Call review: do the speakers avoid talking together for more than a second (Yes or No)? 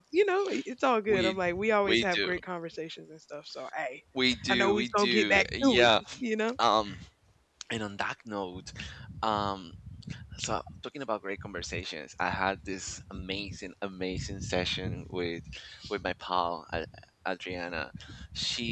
No